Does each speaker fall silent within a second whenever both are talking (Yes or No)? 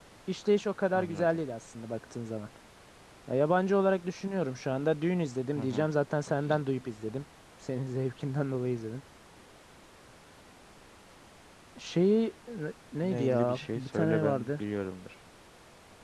No